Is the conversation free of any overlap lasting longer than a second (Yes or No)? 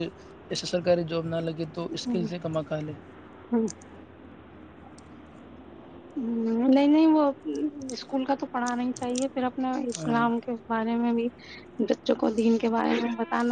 Yes